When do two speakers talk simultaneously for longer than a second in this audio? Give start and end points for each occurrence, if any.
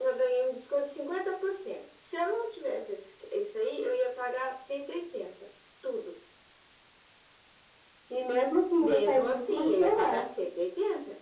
8.8-10.2

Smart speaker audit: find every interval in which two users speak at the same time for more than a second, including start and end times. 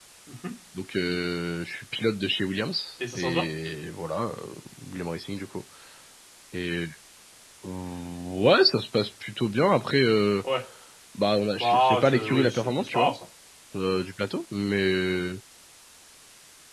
11.6-13.1

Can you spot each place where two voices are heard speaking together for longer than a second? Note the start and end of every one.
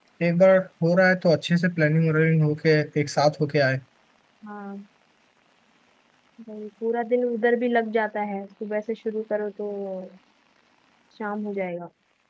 none

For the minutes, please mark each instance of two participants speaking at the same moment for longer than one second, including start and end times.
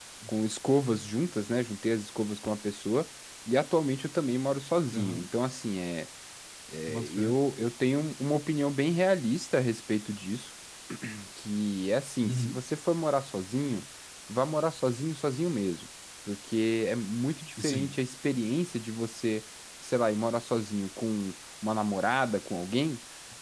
none

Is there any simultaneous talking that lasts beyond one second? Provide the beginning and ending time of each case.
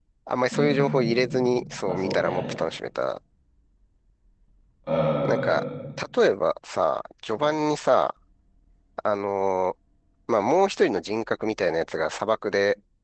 0.5-2.5

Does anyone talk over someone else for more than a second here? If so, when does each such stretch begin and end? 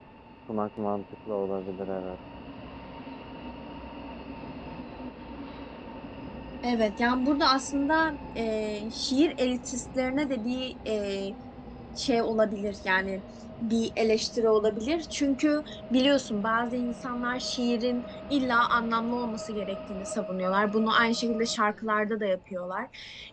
none

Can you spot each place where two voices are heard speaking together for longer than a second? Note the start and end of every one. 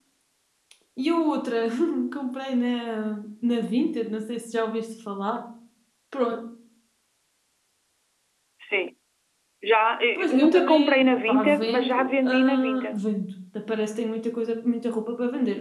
10.2-13.0

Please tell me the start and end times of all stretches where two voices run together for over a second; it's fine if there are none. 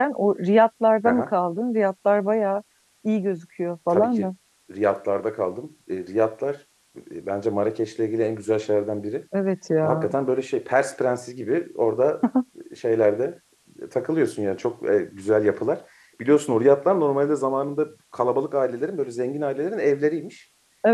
none

